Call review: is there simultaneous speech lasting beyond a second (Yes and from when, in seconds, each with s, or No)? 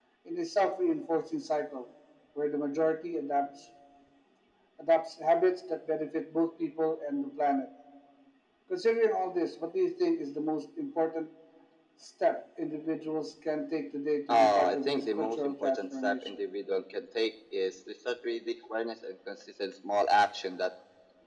Yes, from 14.3 s